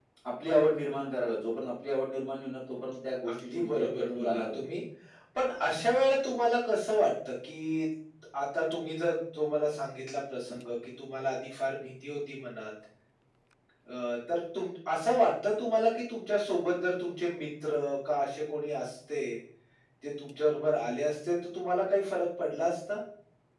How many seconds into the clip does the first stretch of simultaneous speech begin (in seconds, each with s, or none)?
3.2 s